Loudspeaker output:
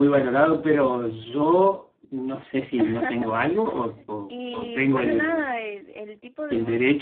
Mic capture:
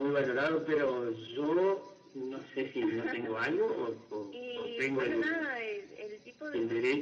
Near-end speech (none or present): none